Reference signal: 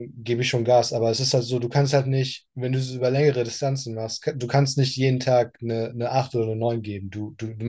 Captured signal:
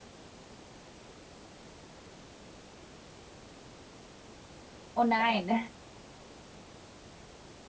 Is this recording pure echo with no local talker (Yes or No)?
No